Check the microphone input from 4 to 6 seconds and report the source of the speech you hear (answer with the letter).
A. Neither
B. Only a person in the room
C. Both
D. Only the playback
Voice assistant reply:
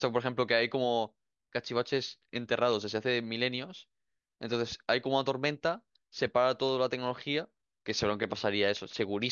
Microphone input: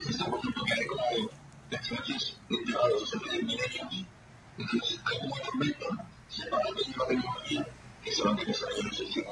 D